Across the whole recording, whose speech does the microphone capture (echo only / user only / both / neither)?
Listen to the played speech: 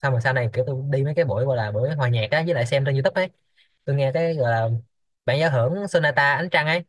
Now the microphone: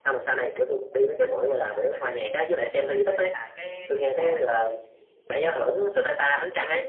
both